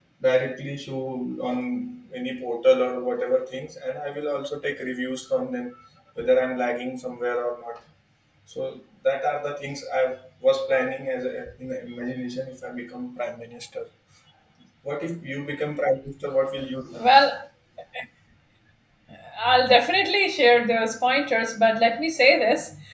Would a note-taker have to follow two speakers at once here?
No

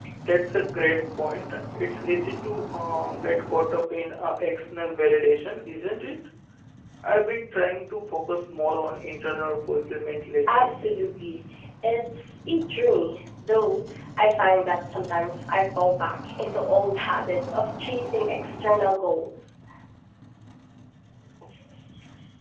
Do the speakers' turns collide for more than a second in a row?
No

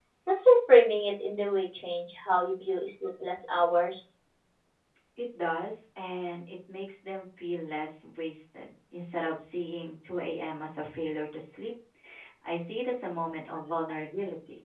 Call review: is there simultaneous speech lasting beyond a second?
No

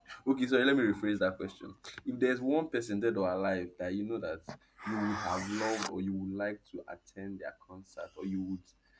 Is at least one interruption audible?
No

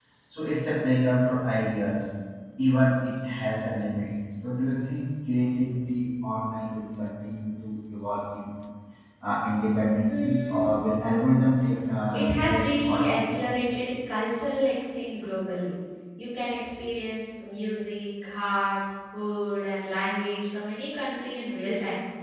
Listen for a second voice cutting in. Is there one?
Yes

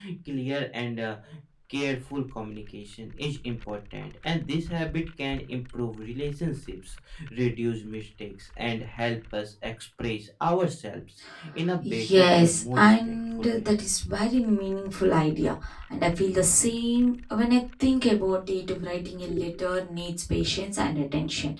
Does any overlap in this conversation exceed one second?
Yes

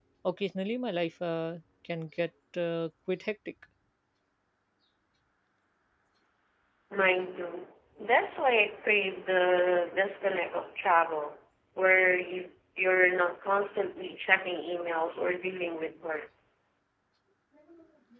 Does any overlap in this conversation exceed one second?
No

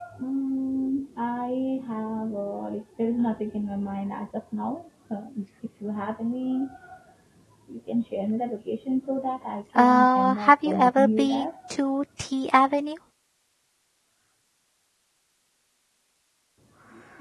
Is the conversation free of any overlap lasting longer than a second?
No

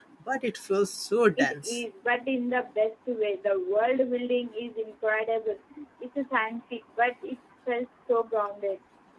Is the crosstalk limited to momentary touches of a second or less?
Yes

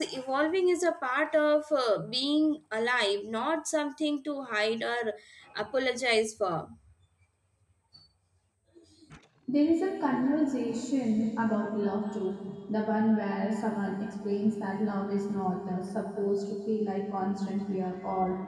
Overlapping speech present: No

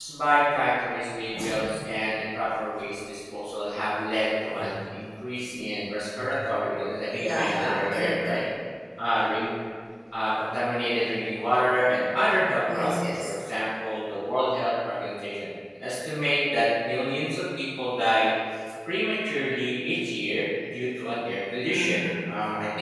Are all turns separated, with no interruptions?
No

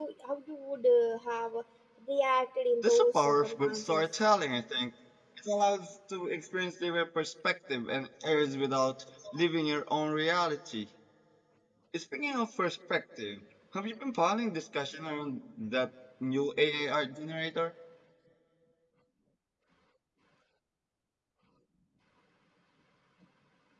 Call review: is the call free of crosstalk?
No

